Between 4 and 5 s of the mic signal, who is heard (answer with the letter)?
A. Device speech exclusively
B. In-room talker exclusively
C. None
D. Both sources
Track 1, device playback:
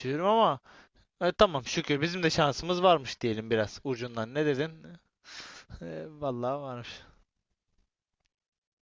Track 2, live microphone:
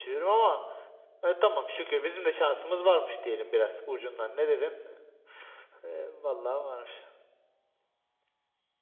A